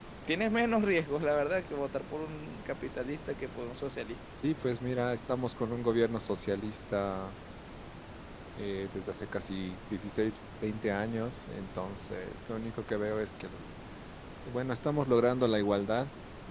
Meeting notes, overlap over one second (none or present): none